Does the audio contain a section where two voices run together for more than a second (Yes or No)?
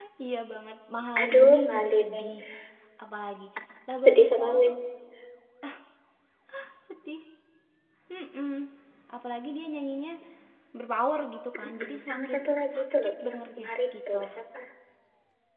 Yes